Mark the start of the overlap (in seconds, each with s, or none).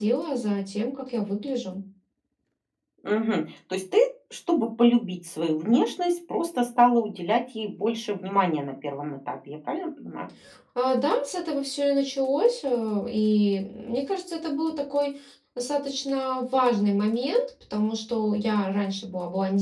none